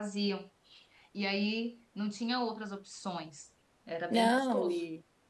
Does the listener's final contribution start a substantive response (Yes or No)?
Yes